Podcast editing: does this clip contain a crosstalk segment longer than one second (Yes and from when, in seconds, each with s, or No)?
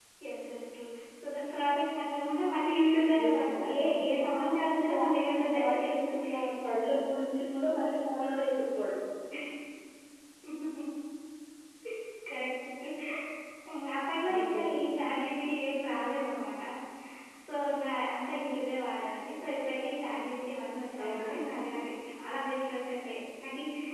Yes, from 3.2 s